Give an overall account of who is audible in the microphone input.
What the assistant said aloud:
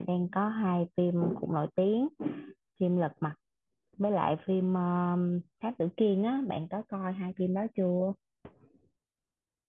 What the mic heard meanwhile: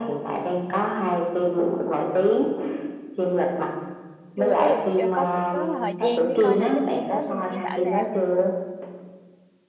both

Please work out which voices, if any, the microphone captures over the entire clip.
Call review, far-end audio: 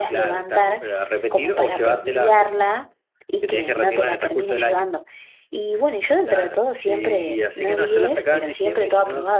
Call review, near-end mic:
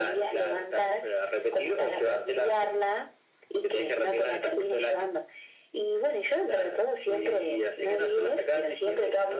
echo only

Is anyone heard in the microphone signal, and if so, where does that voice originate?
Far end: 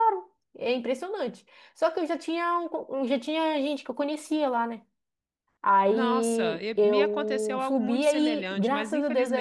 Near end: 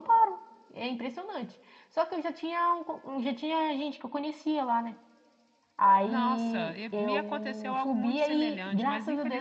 echo only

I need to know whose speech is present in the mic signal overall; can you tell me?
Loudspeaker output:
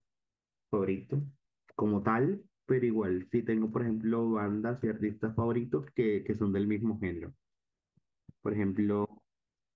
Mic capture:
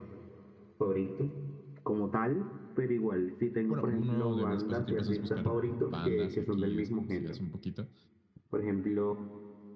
both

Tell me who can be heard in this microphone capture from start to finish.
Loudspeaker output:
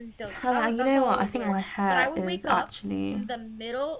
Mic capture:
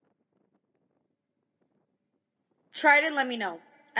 user only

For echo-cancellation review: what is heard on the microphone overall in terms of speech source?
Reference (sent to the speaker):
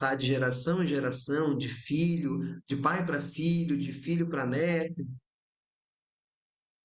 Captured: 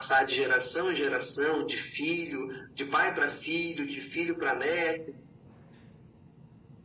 echo only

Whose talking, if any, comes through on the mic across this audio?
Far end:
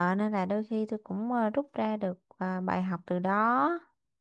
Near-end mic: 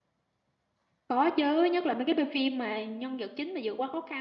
user only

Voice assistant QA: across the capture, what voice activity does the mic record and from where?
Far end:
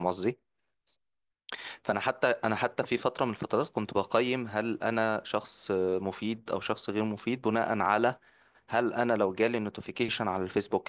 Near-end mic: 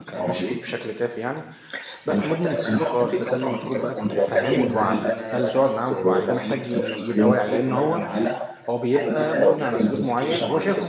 both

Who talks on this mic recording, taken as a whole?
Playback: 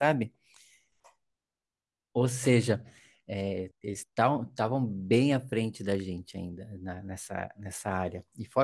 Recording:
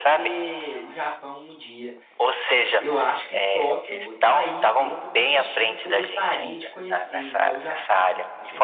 both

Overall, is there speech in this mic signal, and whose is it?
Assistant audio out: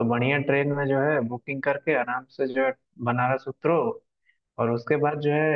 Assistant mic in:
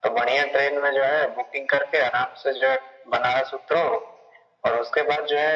echo only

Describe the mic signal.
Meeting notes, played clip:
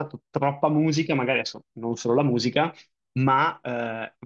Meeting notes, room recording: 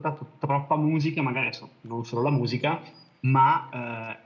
echo only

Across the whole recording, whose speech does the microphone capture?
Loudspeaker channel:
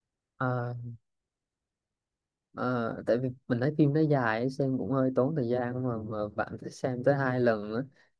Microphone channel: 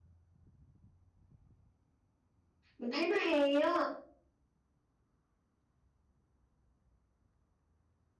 user only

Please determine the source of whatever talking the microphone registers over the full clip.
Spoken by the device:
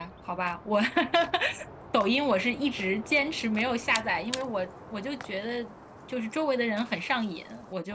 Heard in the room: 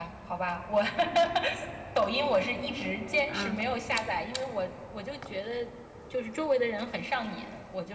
both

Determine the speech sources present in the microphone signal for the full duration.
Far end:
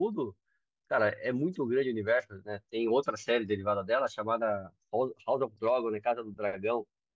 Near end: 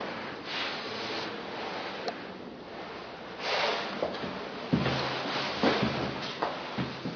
neither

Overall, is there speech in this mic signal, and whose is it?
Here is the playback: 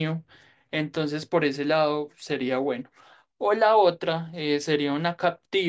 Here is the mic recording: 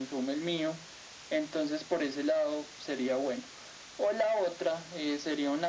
echo only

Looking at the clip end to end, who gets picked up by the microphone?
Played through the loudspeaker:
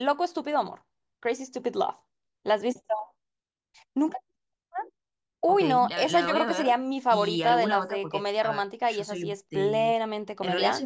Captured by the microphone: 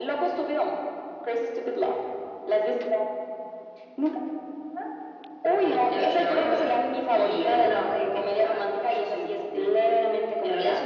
echo only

